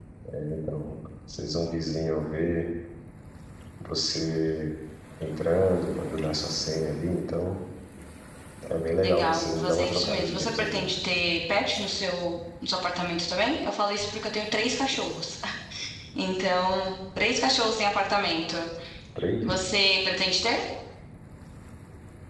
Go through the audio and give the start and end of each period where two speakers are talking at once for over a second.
9.0-10.9

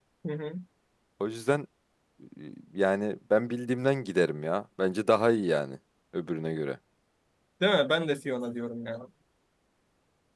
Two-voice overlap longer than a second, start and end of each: none

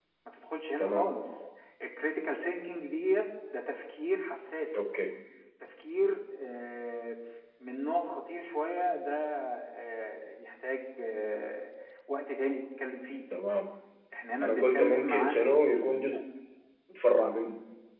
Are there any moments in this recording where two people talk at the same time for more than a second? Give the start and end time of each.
14.4-16.0

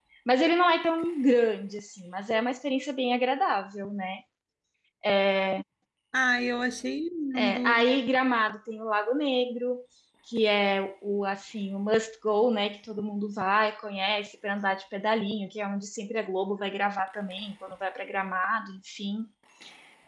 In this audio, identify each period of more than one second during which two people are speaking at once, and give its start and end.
none

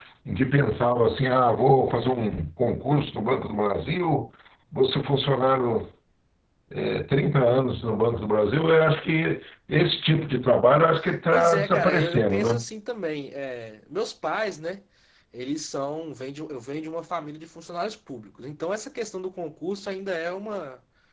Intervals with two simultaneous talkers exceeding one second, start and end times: 11.3-12.6

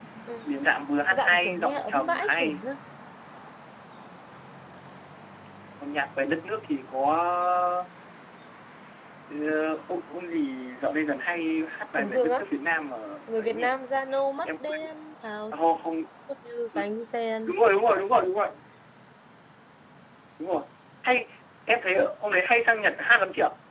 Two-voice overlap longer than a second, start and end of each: 1.1-2.6

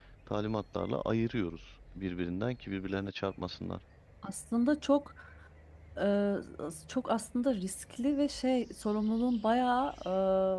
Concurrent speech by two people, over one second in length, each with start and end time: none

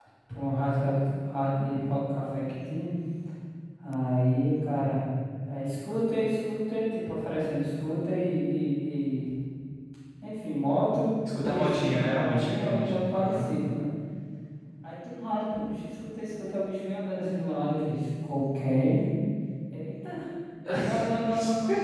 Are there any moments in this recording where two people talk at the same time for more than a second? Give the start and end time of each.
11.4-13.5

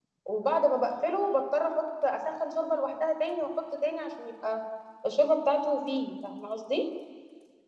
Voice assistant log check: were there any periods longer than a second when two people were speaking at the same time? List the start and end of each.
none

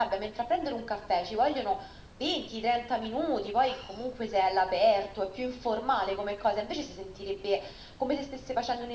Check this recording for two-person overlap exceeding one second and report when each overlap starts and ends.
none

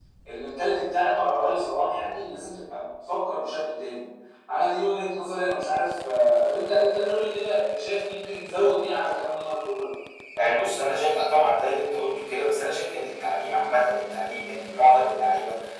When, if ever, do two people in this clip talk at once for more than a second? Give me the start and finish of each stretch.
none

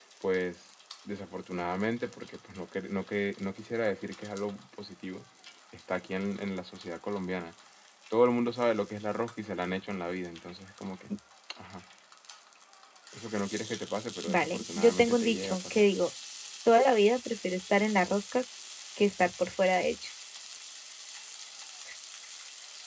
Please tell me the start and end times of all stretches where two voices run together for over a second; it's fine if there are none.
14.3-15.9

